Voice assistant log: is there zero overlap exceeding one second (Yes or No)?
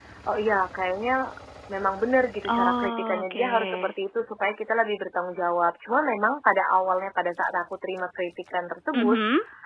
No